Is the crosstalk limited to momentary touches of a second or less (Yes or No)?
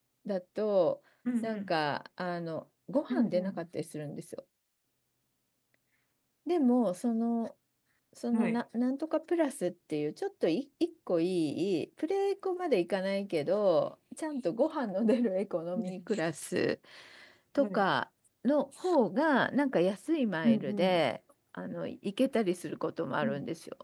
Yes